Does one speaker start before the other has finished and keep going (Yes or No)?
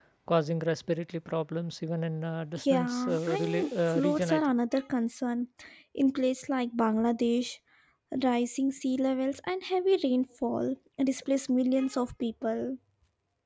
Yes